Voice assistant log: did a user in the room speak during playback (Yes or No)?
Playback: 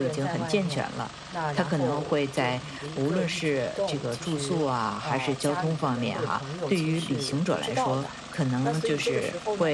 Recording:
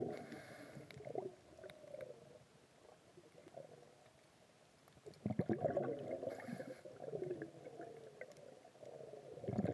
No